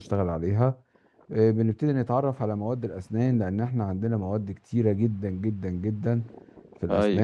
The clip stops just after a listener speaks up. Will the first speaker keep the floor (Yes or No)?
Yes